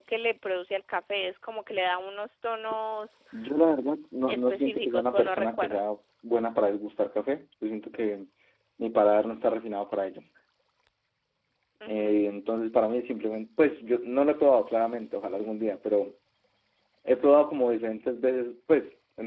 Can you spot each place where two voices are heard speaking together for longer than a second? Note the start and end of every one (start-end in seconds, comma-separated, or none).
4.3-5.8